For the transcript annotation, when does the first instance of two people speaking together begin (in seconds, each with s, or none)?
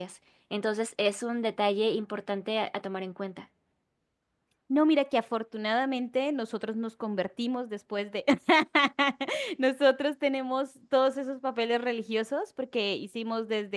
none